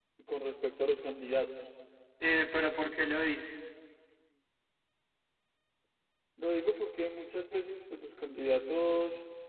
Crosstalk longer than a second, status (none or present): none